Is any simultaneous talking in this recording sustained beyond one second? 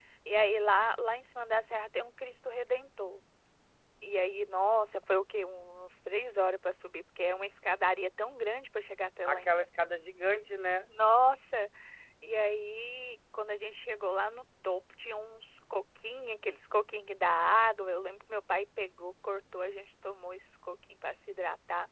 No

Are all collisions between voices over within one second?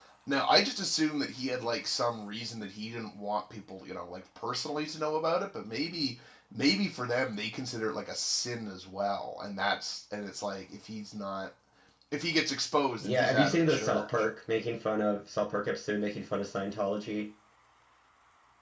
No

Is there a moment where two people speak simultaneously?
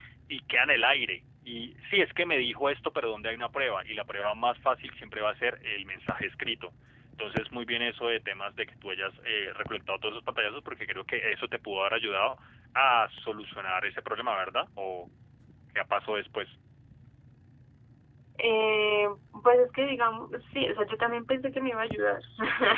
No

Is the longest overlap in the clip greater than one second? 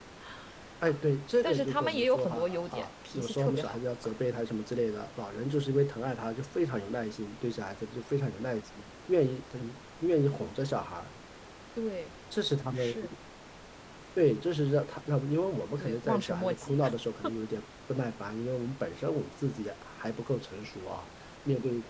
Yes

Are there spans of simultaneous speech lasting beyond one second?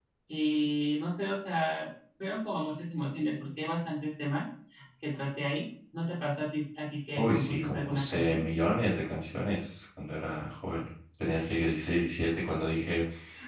Yes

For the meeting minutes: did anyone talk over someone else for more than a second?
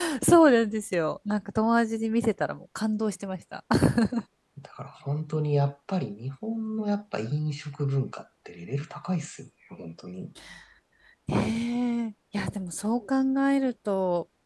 No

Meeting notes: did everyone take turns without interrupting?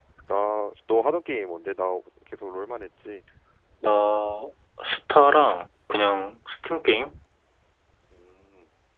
Yes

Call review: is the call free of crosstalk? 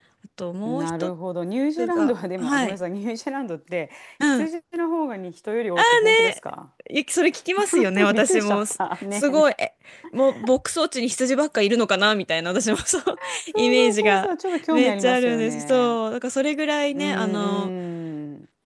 No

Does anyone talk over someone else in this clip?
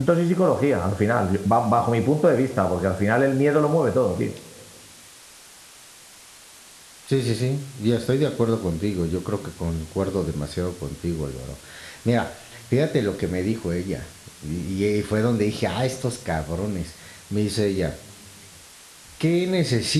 No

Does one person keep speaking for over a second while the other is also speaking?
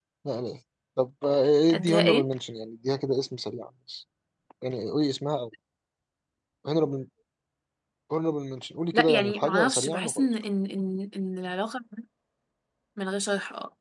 Yes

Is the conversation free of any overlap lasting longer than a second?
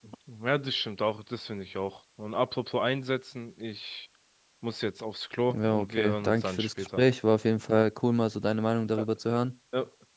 No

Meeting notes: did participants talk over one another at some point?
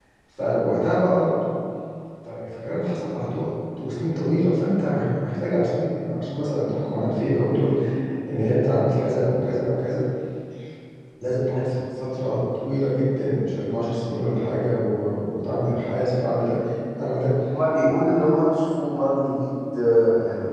No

